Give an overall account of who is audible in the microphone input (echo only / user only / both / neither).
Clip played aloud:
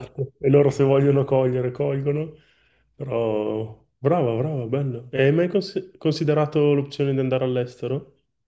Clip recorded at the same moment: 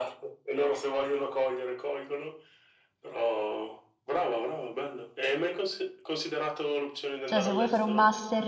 both